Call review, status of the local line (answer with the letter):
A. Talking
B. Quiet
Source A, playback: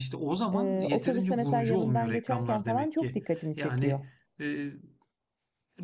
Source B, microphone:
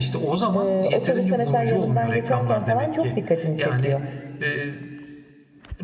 B